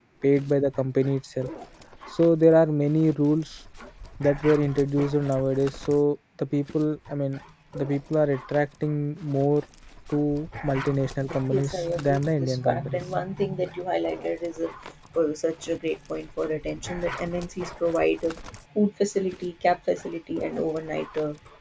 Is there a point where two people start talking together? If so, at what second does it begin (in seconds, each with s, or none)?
11.5 s